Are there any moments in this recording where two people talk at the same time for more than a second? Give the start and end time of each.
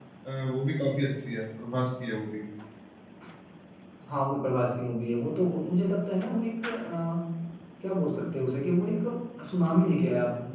none

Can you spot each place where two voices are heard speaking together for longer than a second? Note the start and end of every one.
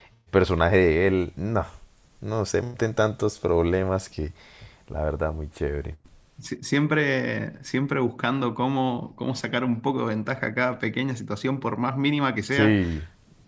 none

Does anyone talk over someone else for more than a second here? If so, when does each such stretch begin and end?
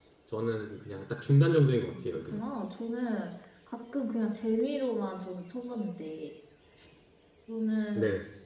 none

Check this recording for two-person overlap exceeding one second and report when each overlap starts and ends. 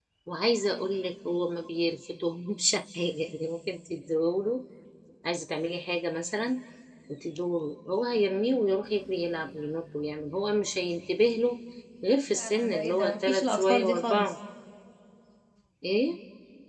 12.4-14.3

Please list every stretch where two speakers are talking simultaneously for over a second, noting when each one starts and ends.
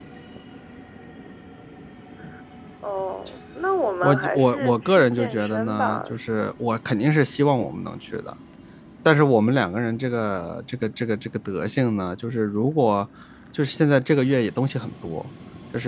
4.0-6.0

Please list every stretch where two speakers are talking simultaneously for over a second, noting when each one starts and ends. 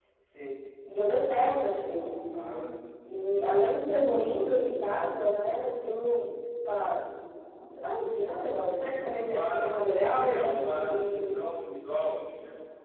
9.3-11.3

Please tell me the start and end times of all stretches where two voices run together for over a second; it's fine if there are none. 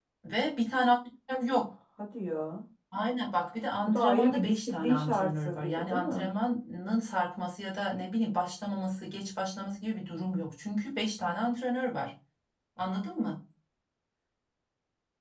3.9-6.3

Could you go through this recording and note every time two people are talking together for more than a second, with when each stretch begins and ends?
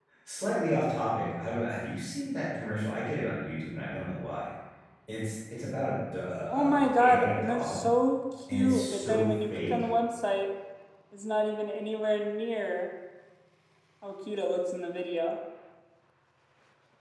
6.5-7.9, 8.5-9.8

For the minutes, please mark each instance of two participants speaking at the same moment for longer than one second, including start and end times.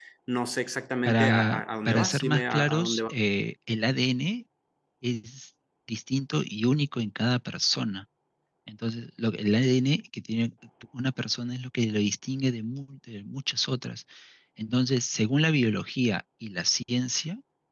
1.1-3.1

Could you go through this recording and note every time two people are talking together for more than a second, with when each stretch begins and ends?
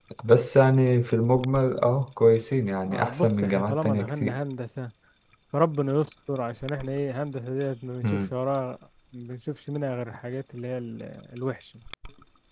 2.9-4.3

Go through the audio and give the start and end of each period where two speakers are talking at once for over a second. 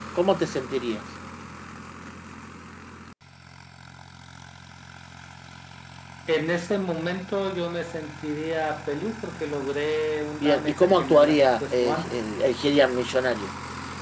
10.4-12.3

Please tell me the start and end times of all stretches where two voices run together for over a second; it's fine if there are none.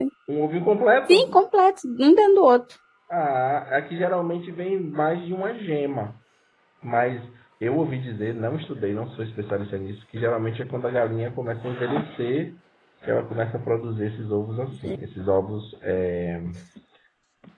none

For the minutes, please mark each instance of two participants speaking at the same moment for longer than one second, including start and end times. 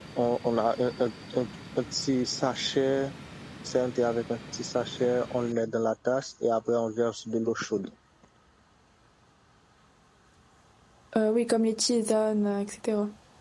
none

